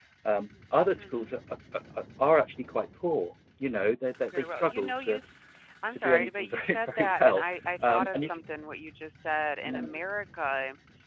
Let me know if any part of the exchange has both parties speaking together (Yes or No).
Yes